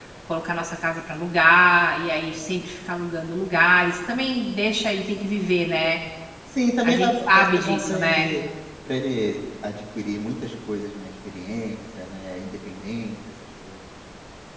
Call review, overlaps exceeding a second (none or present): present